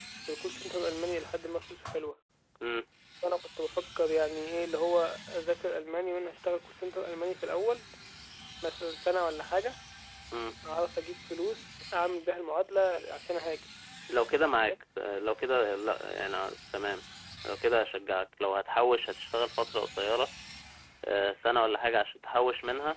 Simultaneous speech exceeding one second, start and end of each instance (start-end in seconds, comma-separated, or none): none